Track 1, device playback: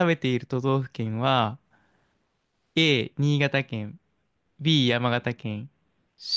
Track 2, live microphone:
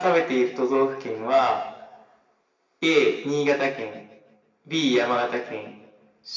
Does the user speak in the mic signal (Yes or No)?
No